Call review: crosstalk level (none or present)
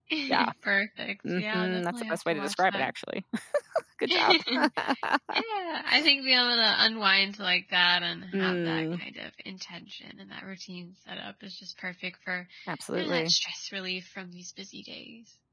present